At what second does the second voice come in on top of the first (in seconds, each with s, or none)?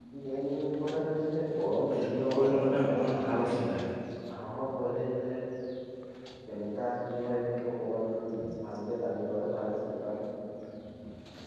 1.9 s